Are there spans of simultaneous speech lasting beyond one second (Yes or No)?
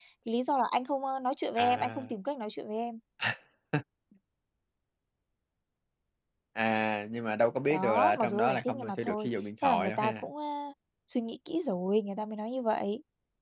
Yes